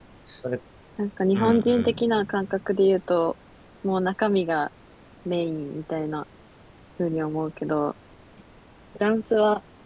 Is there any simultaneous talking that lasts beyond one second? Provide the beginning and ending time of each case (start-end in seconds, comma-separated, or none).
1.4-2.6